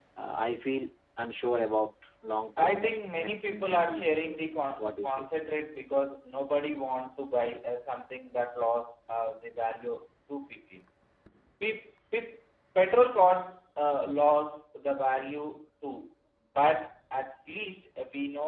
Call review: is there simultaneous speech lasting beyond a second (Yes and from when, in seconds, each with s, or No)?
Yes, from 2.6 s